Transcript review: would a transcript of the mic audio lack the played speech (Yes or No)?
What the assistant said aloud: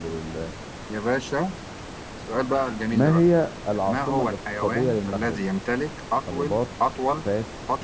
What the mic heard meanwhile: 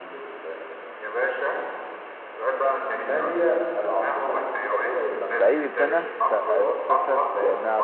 No